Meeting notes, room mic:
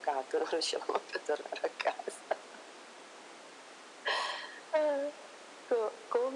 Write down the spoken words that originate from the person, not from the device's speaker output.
none

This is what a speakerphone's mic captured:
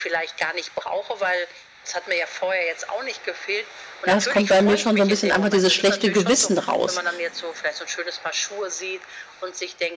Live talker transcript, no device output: Ja es kommt bei mir schon so 'n bisschen einfach dieses schlechte Gewissen raus,

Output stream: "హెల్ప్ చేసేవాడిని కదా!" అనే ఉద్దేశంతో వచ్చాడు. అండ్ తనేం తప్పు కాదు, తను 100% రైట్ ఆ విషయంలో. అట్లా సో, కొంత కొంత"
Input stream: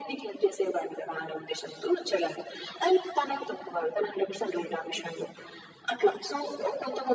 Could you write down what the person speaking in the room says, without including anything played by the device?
none

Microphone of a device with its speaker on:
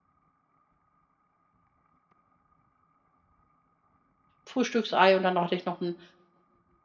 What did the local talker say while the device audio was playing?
Frühstücksei und dann hatte ich noch 'n

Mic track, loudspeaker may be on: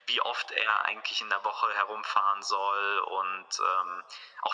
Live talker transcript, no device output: none

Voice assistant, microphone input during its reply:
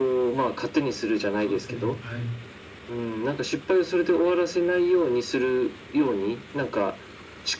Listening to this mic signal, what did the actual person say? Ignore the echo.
そうですね、はい。

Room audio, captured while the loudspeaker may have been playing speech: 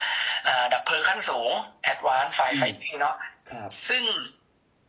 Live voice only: อืม ครับ

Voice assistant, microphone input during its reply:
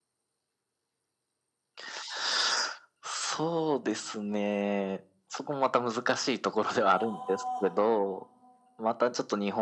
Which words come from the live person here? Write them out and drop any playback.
ああ。

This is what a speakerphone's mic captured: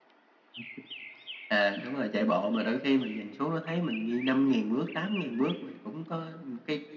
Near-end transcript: none

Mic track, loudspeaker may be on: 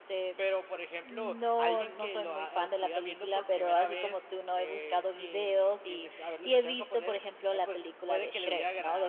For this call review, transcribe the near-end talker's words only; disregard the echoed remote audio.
none

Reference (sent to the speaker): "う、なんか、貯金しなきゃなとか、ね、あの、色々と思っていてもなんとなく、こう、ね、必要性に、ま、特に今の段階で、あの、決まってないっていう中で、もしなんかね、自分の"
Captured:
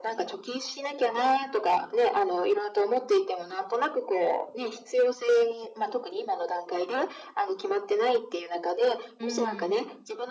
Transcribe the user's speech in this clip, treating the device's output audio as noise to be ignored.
うーん。

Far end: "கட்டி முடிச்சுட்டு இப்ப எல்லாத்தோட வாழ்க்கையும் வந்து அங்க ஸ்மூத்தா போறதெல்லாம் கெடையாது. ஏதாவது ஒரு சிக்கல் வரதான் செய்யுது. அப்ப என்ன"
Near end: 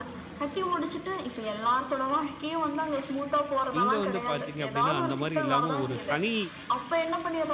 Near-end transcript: இங்க வந்து பாத்தீங்க அப்படின்னா, அந்த மாரி இல்லாம ஒரு தனி

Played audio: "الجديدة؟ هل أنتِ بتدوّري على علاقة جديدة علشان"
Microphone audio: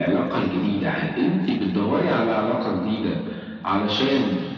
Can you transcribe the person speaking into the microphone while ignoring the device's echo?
none

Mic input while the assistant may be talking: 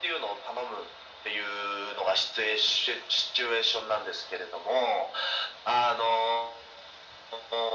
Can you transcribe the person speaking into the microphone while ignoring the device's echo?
none

